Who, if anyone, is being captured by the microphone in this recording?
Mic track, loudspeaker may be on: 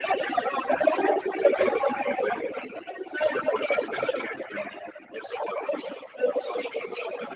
echo only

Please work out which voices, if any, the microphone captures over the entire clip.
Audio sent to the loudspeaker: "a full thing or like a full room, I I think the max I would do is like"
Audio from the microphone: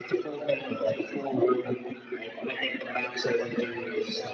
both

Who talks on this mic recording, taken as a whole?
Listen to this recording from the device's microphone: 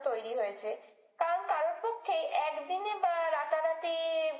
echo only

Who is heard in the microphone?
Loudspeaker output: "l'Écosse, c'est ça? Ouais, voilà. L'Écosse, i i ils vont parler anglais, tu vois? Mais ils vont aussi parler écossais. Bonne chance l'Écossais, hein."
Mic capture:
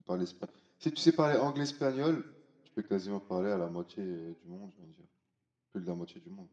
user only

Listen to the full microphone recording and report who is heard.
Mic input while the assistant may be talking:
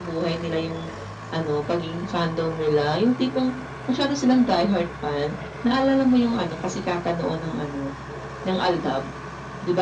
echo only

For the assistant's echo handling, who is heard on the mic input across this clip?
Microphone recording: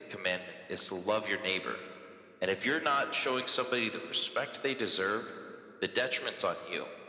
echo only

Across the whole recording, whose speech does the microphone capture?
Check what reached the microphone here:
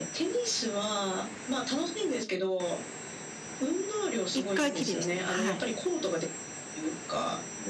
both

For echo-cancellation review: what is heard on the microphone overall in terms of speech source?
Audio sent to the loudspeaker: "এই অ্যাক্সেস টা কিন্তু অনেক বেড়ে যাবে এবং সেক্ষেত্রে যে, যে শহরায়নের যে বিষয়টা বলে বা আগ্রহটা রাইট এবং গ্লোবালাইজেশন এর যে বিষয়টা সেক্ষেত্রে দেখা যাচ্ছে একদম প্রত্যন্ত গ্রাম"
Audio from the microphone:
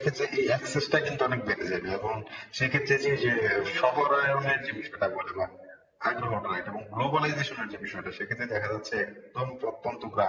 both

